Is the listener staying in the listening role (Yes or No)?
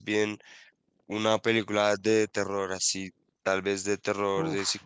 Yes